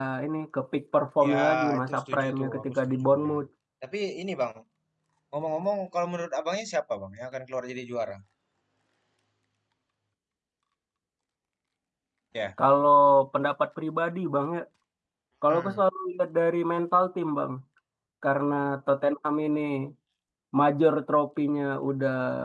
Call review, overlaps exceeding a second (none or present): present